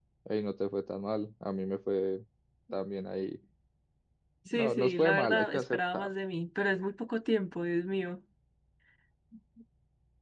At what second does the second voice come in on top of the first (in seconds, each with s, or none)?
4.5 s